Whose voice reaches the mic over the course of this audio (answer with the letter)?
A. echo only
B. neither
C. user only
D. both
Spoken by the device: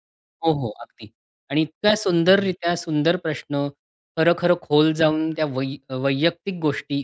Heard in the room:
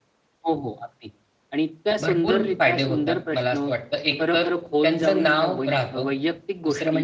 D